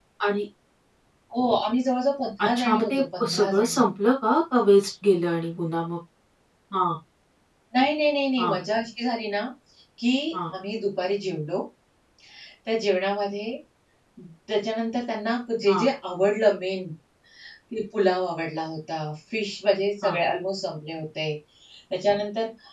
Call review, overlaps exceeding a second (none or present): present